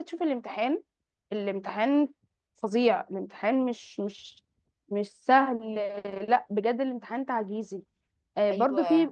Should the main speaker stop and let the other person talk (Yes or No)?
No